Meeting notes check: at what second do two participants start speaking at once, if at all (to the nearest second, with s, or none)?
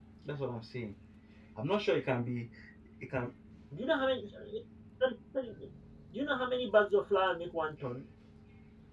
none